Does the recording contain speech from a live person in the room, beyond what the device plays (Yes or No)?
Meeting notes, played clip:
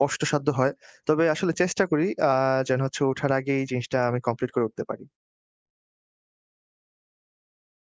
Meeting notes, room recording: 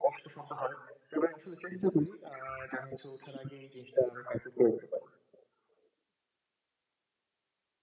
No